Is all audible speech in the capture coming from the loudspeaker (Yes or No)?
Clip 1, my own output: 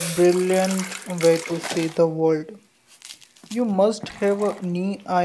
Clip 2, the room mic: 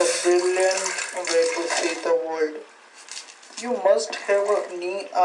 Yes